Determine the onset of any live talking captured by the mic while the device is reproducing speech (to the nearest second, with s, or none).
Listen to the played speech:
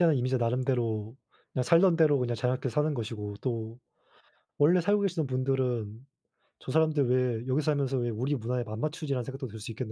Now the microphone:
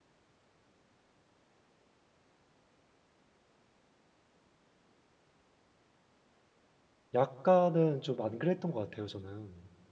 7 s